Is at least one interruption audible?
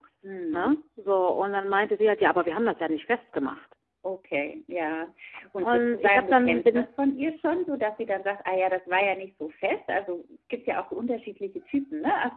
Yes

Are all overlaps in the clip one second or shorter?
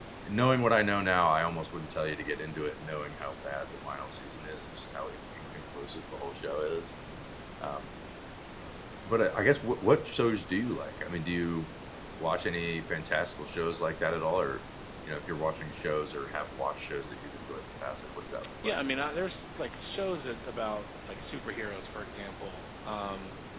Yes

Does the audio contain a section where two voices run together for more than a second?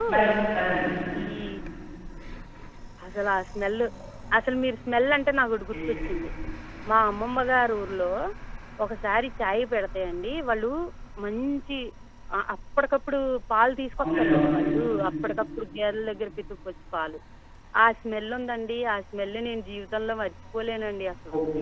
No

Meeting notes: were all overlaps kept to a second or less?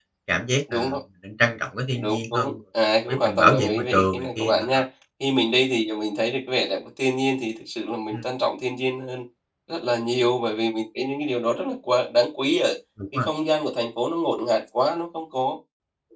No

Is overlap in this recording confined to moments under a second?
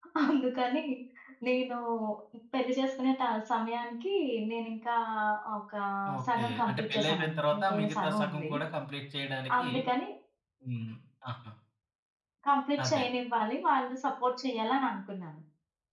No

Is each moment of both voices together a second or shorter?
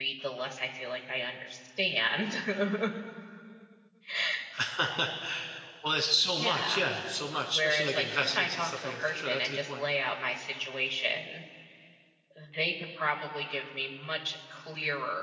No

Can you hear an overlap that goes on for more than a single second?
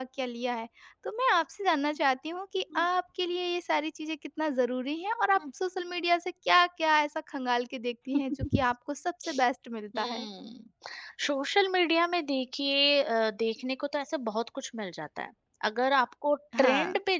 No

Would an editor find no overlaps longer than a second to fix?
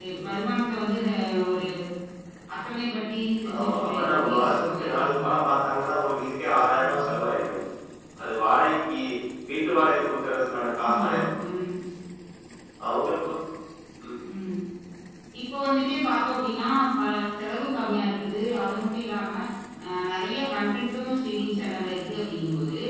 No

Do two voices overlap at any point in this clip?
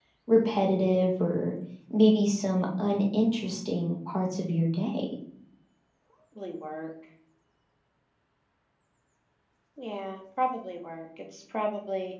No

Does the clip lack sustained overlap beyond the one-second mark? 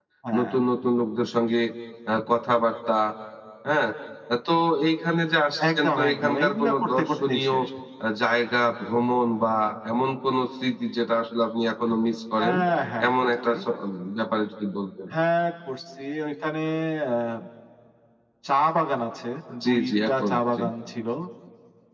No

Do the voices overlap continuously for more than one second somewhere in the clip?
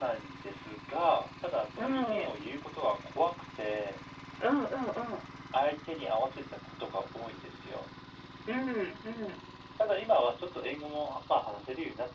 No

